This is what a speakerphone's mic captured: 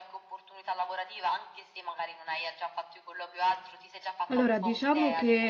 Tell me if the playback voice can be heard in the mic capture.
Yes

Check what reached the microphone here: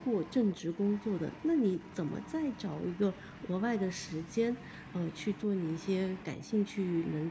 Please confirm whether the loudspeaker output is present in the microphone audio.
No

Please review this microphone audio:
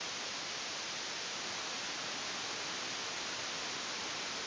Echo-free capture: Yes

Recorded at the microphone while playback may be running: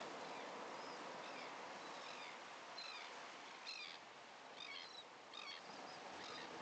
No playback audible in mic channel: Yes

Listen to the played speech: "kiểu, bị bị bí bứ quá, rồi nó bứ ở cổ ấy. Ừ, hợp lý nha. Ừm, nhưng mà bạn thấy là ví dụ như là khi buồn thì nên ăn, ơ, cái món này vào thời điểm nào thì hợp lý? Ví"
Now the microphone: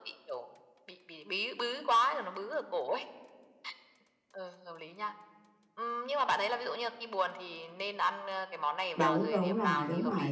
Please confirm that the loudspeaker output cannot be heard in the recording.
No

